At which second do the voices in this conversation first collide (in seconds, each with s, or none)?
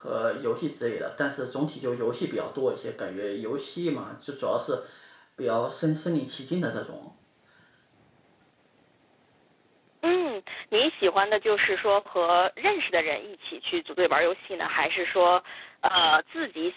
none